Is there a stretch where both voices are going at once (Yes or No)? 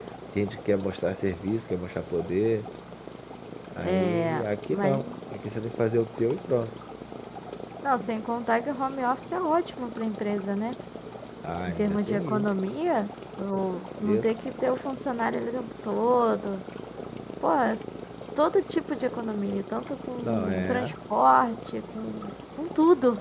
Yes